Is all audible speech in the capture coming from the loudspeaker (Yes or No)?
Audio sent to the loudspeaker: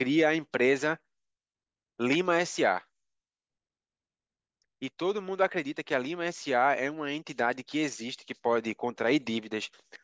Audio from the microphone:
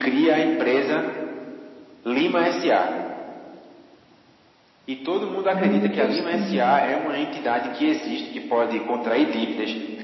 No